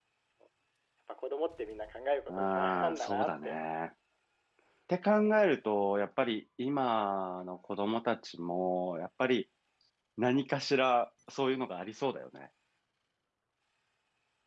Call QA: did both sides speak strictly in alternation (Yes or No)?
No